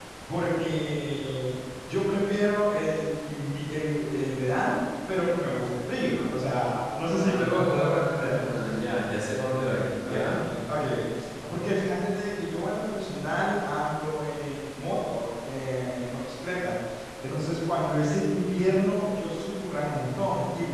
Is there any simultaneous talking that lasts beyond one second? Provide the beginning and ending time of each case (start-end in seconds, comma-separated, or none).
7.1-8.4